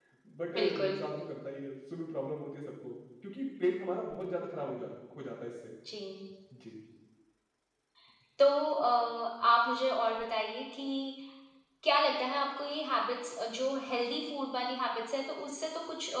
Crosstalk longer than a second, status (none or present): none